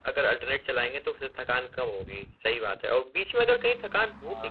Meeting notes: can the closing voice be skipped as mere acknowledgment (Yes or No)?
Yes